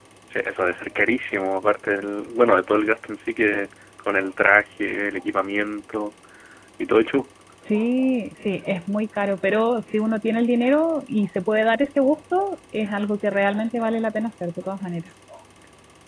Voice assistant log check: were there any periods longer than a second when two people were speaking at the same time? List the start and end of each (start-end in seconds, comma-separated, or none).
none